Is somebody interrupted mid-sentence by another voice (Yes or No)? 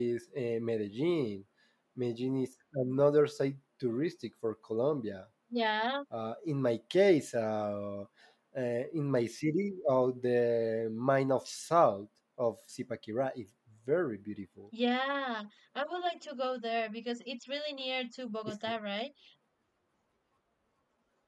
No